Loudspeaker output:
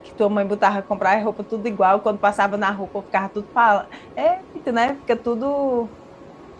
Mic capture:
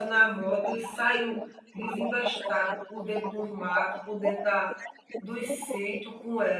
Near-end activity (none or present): present